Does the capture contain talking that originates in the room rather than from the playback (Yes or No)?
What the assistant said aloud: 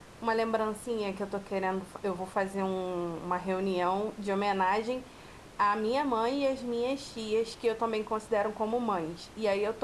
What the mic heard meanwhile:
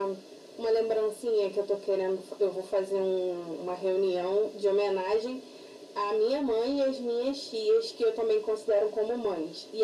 No